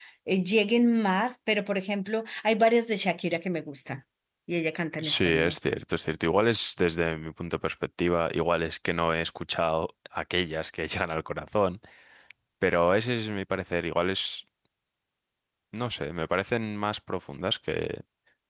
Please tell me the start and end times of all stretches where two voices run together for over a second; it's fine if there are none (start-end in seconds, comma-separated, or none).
none